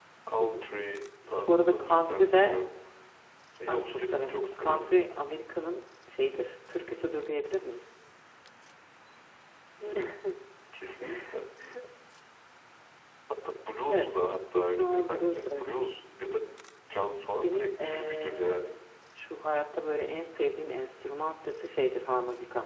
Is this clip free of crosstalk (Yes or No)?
No